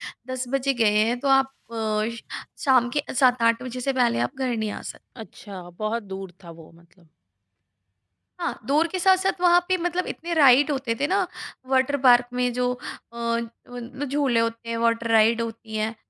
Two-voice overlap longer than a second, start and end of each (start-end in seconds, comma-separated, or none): none